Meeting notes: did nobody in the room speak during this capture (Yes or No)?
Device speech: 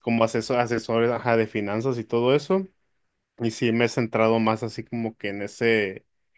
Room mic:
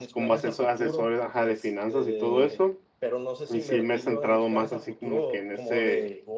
No